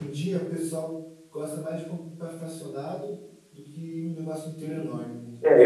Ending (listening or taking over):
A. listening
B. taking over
B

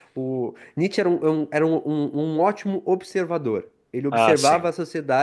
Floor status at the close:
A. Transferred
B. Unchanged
B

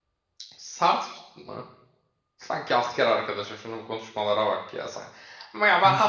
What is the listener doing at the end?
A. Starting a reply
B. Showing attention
B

